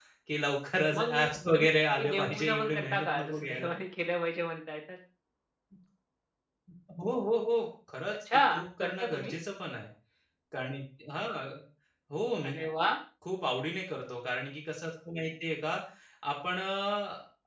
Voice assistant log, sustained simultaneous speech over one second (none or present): present